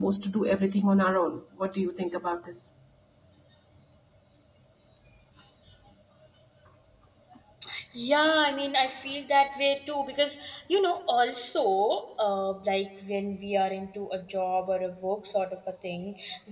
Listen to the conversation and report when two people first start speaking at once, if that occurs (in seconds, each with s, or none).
none